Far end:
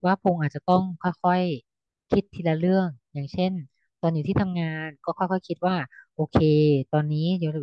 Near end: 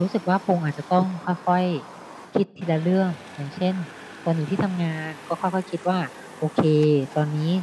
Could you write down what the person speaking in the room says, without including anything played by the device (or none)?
none